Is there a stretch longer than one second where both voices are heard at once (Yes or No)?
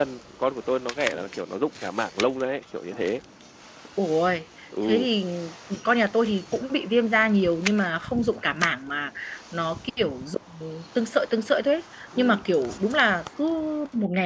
No